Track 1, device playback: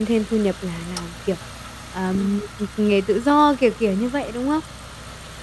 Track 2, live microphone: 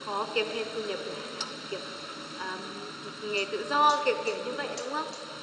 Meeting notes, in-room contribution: none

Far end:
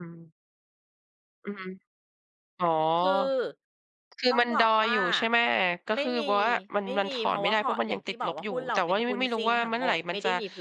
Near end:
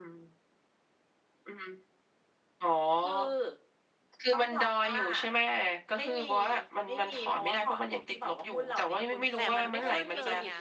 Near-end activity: present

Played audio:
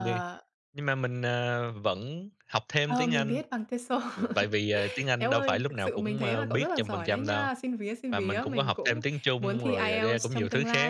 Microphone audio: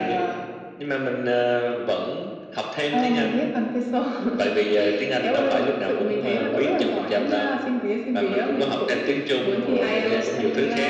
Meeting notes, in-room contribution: none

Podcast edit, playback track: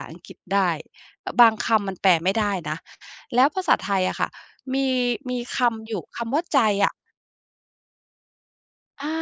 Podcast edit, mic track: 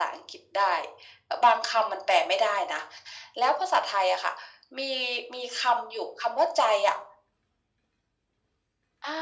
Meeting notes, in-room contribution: none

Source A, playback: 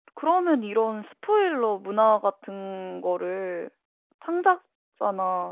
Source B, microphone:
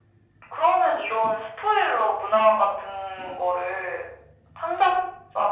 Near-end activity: none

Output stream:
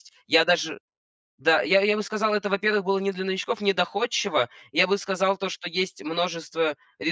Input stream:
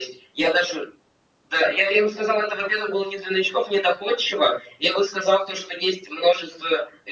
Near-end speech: none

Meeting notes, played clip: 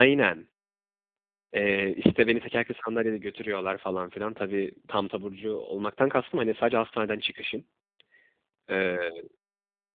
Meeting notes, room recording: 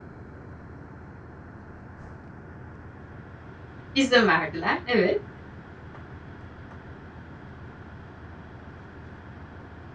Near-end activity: present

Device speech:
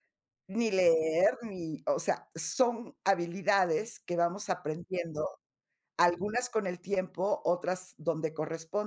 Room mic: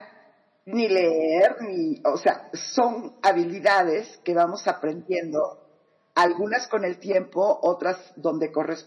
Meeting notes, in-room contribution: none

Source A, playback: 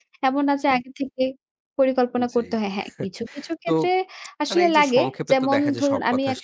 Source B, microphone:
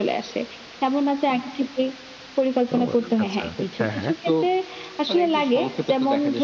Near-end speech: present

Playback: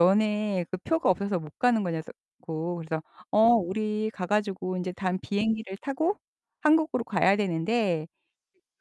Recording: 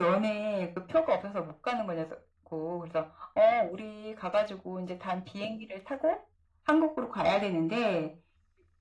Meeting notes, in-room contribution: none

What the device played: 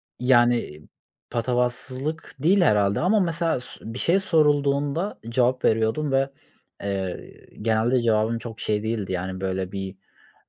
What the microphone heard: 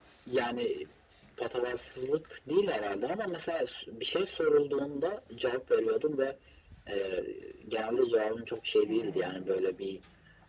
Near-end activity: present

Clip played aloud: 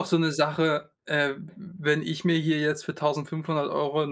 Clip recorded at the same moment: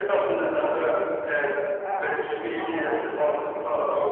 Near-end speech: present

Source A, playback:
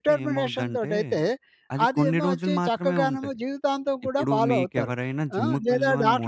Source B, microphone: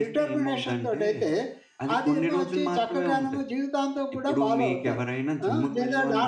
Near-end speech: none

